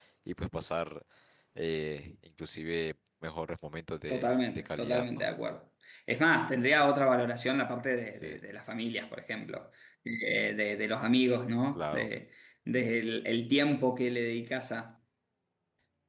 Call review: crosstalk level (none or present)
present